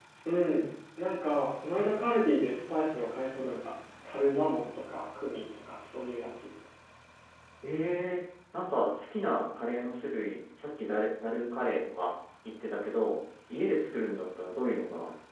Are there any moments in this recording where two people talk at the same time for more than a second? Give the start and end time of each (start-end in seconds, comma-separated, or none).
none